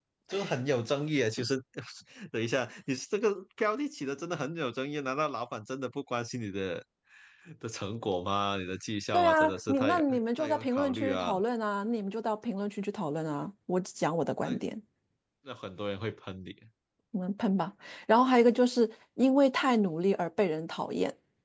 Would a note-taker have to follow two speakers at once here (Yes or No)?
Yes